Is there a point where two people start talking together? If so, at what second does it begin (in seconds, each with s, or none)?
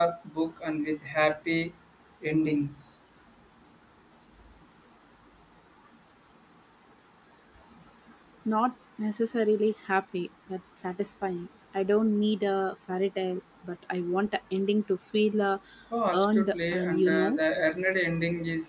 16.1 s